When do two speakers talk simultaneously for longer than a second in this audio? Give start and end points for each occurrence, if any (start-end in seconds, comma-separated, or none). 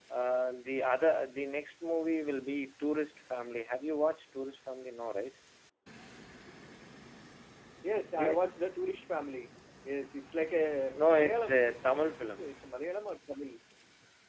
11.2-12.5